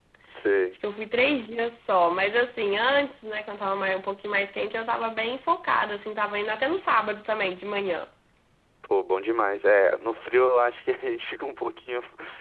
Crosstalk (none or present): none